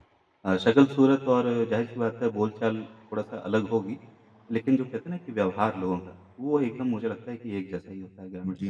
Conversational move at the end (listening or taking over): taking over